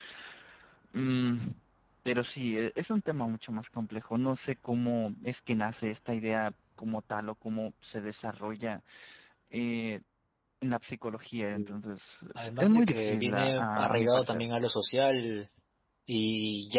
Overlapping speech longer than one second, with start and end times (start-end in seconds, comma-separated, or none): 12.4-14.4